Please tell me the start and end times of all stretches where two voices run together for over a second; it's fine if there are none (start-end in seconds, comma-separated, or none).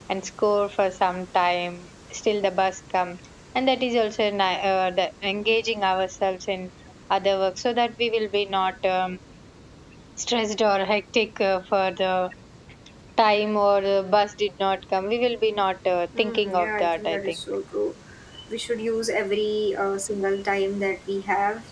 16.2-17.4